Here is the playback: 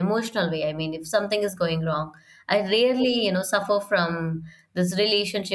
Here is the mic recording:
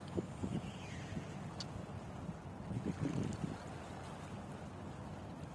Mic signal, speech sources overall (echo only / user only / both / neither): neither